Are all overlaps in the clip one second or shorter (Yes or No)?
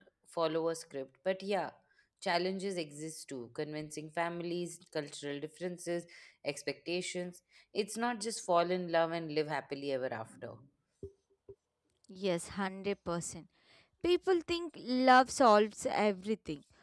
Yes